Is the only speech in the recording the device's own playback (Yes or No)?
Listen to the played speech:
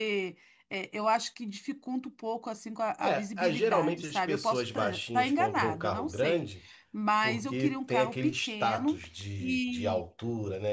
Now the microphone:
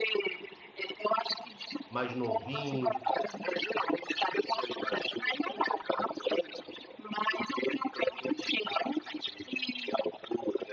No